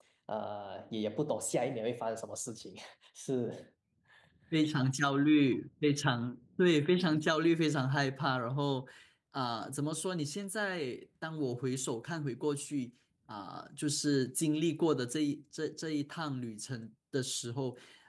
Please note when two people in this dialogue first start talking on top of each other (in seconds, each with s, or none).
none